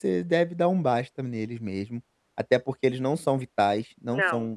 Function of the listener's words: listening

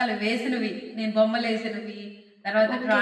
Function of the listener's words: taking over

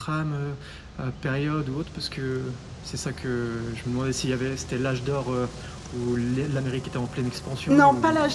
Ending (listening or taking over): taking over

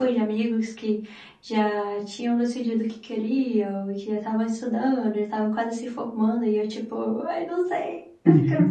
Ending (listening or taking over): listening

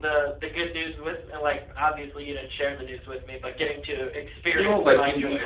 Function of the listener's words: taking over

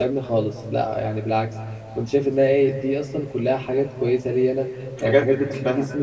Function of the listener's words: listening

